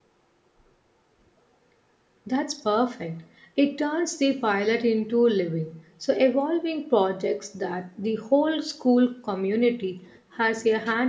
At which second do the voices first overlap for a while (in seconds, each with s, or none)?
none